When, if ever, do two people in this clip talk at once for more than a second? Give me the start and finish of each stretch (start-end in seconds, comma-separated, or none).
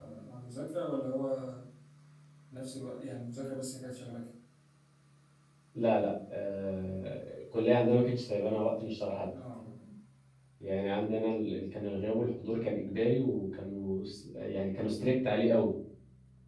none